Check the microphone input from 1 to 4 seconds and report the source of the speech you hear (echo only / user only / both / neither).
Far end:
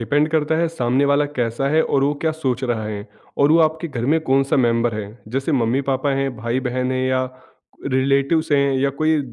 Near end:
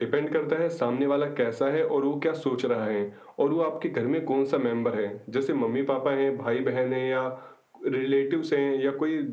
echo only